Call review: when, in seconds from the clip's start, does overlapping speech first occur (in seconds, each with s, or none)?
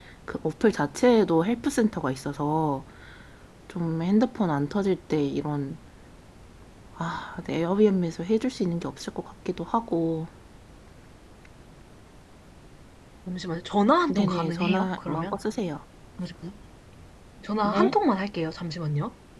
14.1 s